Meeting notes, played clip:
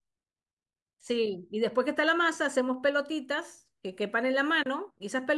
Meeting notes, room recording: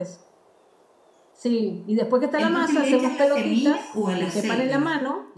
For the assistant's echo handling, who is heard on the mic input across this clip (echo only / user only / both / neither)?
both